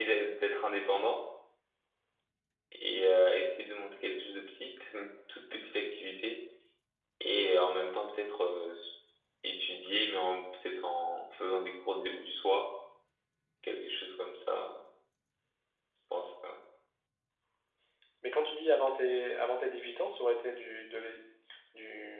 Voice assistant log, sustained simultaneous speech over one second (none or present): none